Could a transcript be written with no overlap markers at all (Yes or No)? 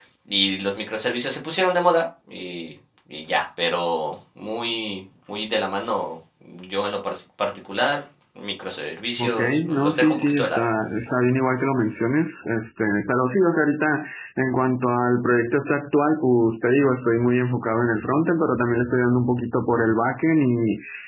No